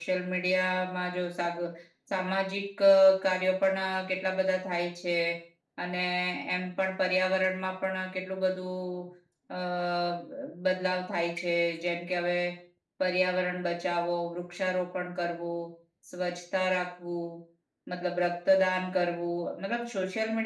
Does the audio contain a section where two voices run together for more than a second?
No

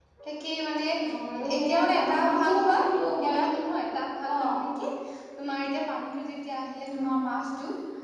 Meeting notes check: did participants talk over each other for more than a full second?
Yes, from 1.6 s

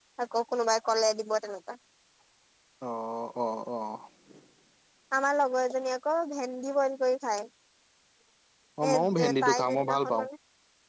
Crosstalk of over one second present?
Yes, from 8.9 s

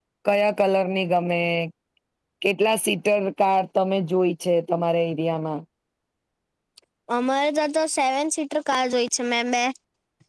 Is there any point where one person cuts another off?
No

